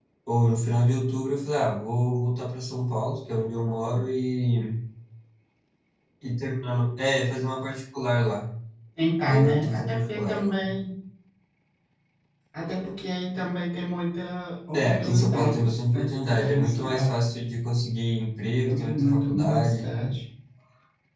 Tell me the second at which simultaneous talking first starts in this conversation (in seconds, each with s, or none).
9.3 s